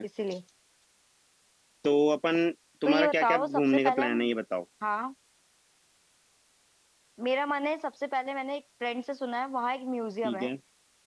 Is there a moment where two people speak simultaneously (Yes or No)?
Yes